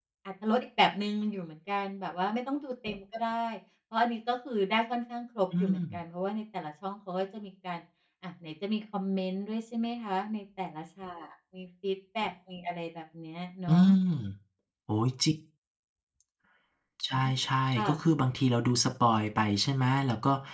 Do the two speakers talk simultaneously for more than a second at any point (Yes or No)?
No